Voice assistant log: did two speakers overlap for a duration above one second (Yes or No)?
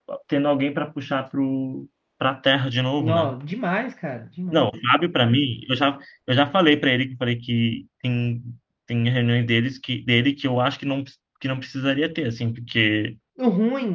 No